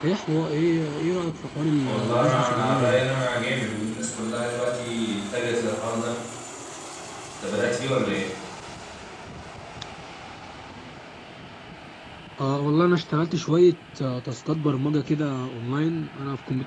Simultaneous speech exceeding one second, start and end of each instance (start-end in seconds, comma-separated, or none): 1.8-3.0